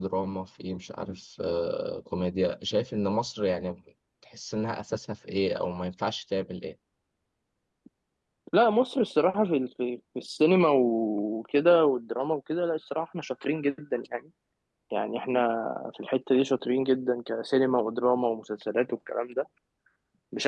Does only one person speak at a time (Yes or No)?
Yes